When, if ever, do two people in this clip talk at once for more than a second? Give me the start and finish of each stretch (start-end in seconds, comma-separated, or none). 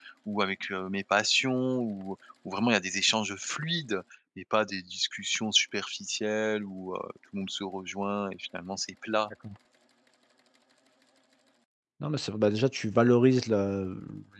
none